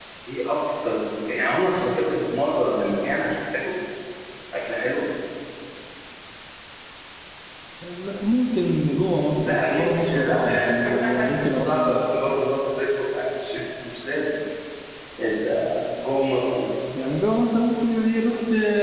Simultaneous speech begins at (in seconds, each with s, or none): 9.4 s